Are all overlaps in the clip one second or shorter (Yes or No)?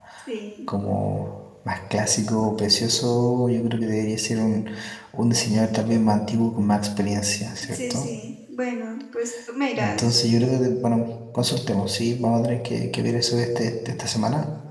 Yes